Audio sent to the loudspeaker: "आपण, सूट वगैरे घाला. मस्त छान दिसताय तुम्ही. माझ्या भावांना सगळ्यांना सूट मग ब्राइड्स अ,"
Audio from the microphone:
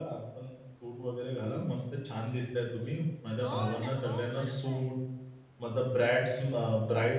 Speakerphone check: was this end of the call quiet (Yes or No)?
No